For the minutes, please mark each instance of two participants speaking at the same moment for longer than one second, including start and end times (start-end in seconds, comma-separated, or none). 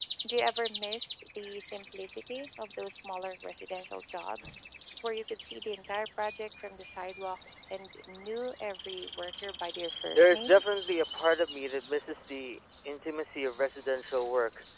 none